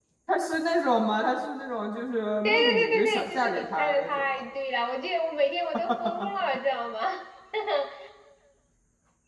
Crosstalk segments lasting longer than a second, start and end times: 2.4-4.4

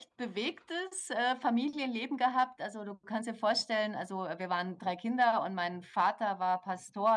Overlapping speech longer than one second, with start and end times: none

